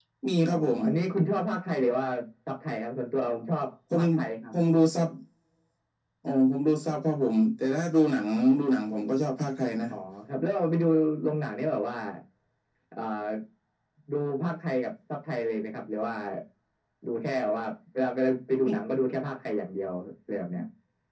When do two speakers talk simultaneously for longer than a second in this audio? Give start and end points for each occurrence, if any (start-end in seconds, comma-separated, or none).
none